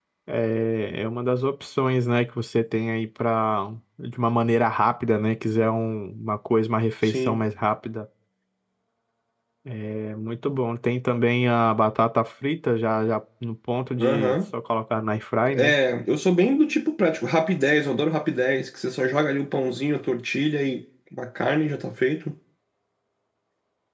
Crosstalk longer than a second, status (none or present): none